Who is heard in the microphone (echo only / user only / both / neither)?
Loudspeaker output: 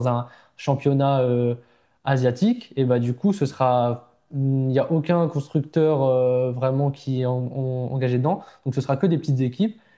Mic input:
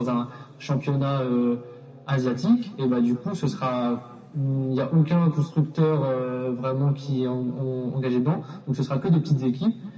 echo only